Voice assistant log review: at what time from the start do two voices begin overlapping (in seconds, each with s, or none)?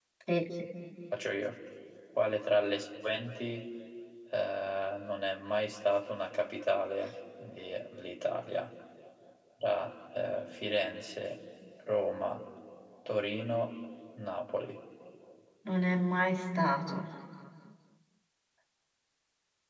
none